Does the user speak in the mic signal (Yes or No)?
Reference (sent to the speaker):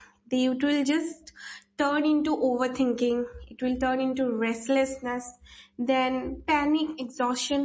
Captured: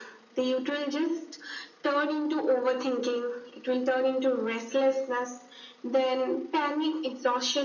No